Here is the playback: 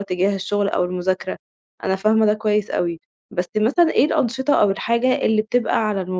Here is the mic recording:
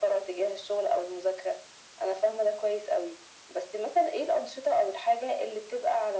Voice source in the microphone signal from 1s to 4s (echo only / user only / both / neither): echo only